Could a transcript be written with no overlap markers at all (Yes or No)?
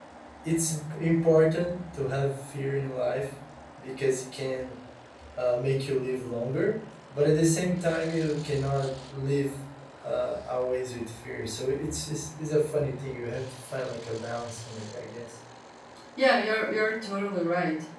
Yes